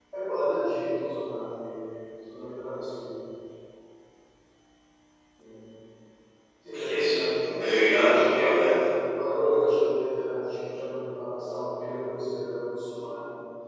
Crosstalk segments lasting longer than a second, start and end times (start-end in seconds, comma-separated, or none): 6.7-8.9